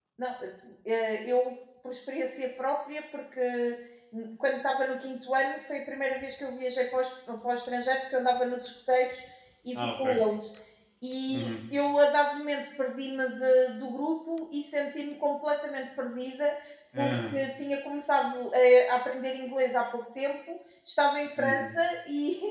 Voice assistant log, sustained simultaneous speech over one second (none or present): none